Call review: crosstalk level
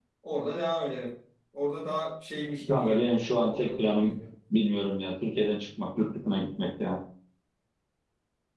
present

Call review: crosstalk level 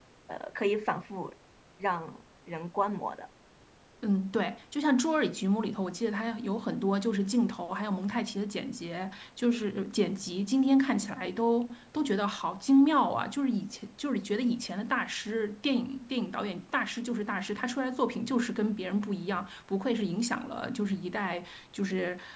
none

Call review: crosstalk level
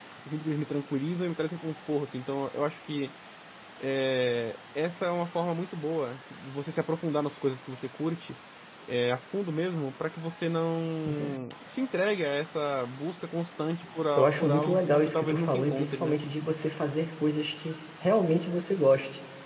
present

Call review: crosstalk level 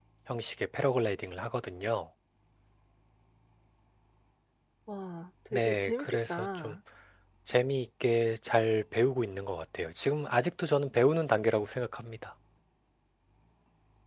present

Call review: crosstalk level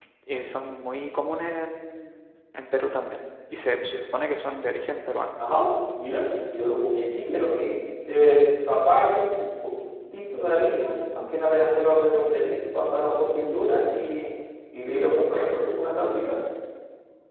none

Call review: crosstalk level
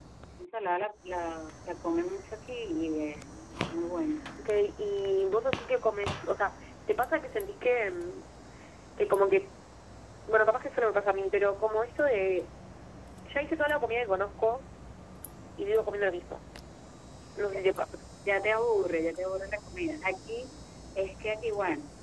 none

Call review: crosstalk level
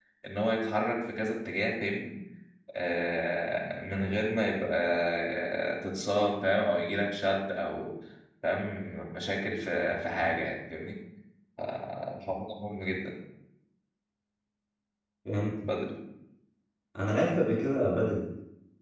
none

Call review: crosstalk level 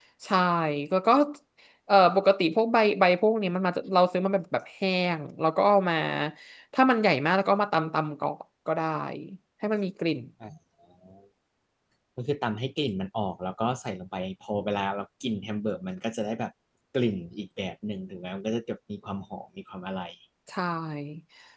none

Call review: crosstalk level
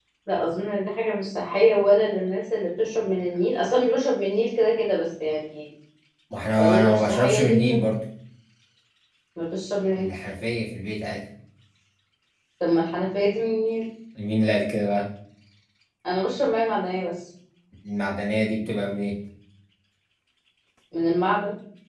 present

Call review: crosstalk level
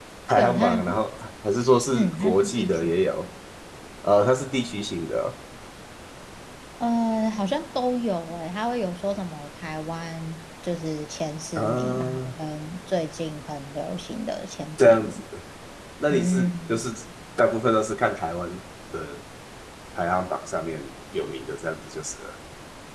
present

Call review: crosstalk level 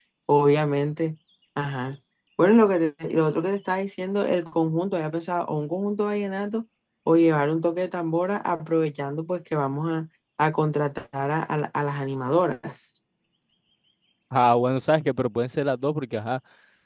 none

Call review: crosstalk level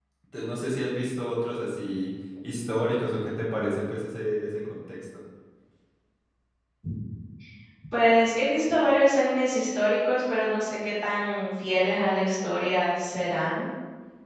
none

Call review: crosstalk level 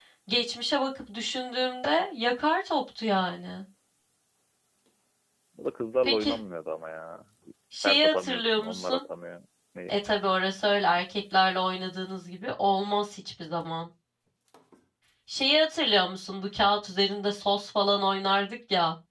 present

